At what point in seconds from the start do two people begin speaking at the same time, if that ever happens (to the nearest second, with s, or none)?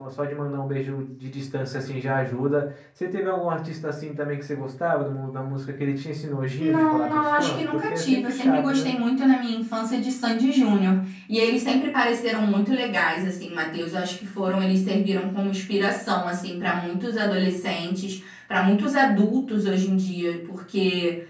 7 s